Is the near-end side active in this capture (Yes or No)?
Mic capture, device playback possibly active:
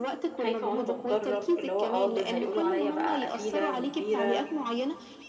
Yes